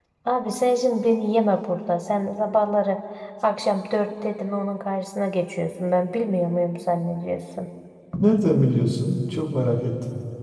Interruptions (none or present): none